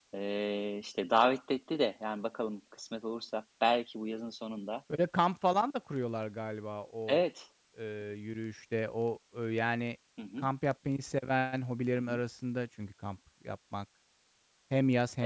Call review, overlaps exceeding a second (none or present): none